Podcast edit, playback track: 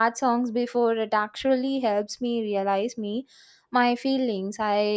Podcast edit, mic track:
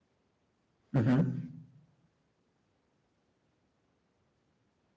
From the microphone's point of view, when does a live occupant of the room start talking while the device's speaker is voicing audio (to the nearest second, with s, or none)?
1 s